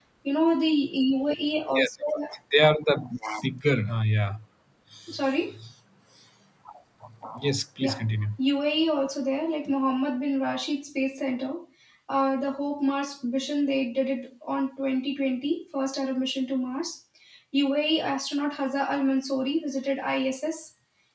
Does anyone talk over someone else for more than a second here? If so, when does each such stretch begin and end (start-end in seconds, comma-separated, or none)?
none